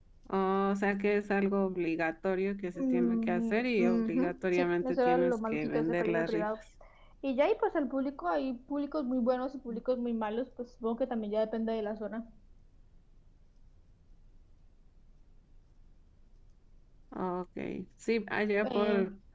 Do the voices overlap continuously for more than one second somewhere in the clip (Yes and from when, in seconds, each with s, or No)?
Yes, from 2.8 s